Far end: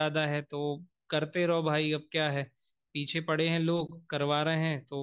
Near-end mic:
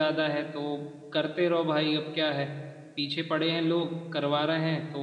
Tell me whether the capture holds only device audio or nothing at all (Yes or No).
Yes